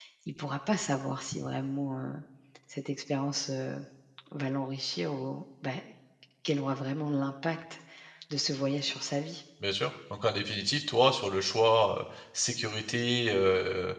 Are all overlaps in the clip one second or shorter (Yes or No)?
Yes